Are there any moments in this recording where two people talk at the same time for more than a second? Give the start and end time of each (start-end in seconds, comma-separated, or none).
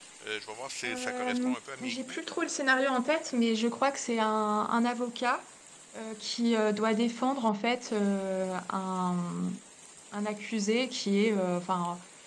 0.9-2.2